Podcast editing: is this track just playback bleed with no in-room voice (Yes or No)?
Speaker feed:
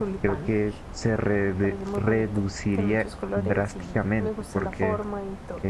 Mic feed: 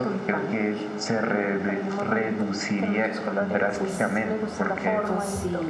No